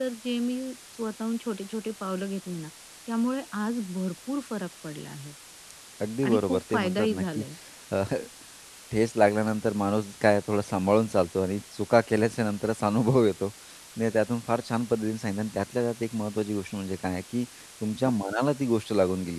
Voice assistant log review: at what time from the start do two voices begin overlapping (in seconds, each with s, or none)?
6.2 s